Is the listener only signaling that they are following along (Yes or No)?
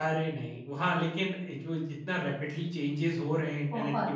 Yes